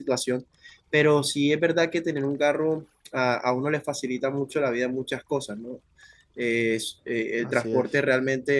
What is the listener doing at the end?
listening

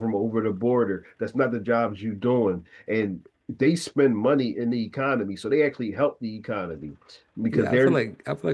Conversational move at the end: taking over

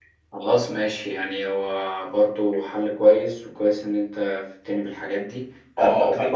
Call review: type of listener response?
taking over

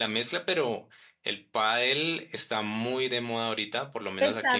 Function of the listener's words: taking over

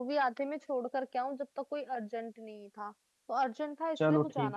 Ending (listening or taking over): taking over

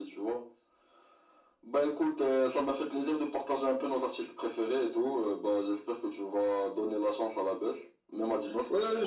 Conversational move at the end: taking over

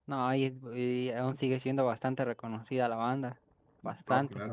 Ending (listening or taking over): taking over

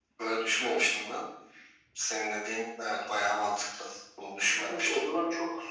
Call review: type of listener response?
taking over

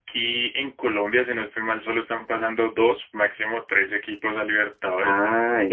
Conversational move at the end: taking over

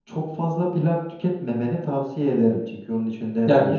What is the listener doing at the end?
taking over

